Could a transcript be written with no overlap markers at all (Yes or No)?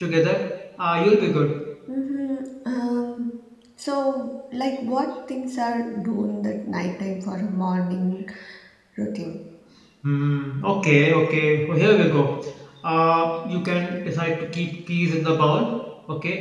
Yes